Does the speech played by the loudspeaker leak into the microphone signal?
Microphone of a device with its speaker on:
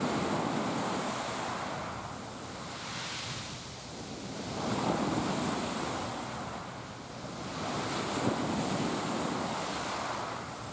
No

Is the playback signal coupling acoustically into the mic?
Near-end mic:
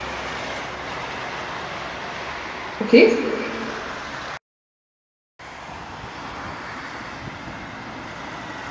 No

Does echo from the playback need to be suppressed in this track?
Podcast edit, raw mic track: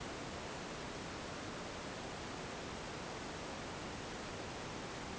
No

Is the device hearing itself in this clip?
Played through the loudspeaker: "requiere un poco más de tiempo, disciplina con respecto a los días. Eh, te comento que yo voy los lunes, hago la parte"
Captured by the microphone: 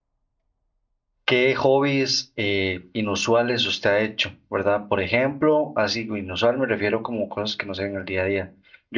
No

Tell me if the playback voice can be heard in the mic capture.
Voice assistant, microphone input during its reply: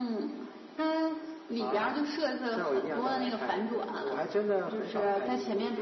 Yes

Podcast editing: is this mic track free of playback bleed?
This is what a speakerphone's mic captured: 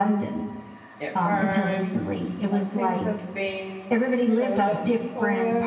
No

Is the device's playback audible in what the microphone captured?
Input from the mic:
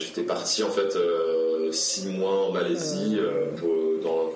Yes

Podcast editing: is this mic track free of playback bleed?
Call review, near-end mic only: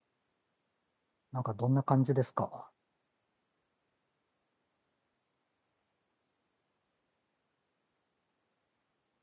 Yes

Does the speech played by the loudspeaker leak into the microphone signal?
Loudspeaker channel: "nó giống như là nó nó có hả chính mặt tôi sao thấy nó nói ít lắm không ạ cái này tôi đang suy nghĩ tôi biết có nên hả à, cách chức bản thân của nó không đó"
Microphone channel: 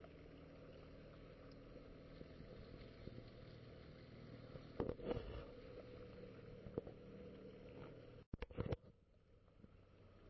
No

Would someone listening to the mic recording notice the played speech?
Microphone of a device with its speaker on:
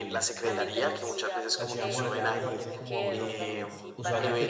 Yes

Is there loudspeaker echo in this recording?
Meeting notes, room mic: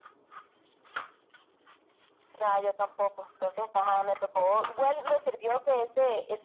Yes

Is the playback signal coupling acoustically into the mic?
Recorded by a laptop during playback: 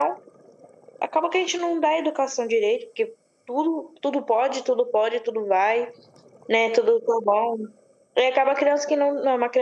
No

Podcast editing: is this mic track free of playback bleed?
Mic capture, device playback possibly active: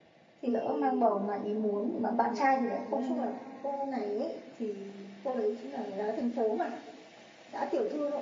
No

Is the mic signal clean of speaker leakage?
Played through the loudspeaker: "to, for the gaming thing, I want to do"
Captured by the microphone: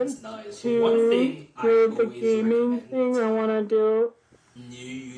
No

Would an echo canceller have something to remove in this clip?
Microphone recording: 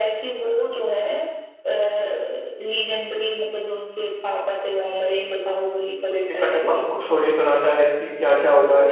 Yes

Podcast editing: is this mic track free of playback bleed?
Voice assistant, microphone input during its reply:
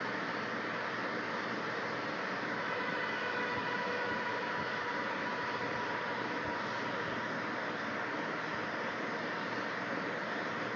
Yes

